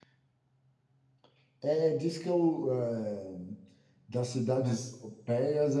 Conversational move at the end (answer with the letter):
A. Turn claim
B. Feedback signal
B